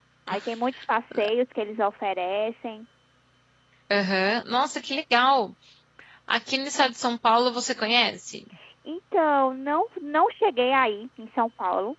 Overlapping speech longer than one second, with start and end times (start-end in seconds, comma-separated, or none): none